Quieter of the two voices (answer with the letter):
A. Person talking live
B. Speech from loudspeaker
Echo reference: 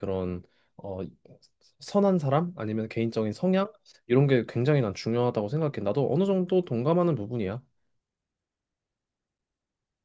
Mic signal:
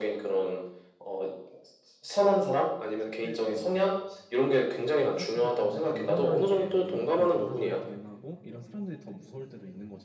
A